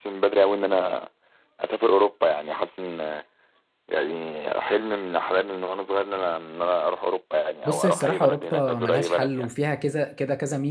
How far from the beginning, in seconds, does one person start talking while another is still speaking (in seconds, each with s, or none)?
7.7 s